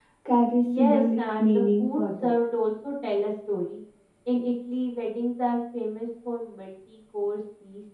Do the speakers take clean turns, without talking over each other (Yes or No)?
No